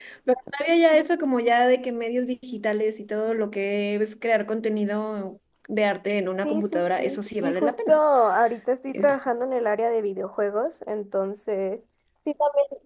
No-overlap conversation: No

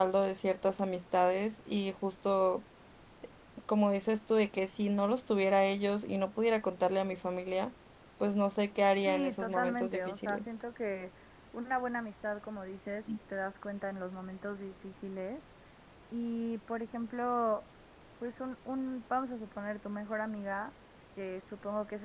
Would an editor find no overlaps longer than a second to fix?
No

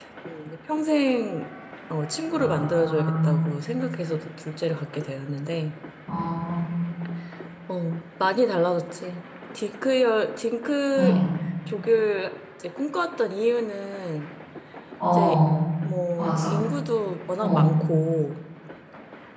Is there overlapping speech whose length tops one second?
Yes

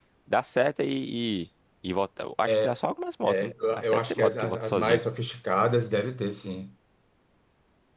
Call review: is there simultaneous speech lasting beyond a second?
Yes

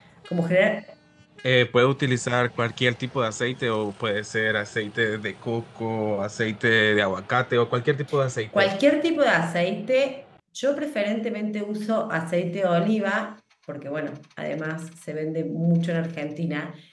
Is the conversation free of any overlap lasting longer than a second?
Yes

